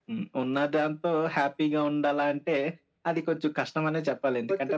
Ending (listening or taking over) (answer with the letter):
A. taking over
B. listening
A